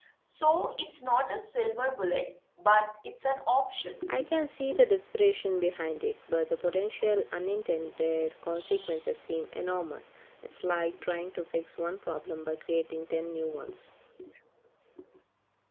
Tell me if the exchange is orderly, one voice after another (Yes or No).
Yes